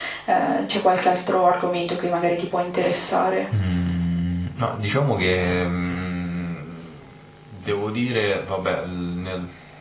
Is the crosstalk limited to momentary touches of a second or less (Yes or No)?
Yes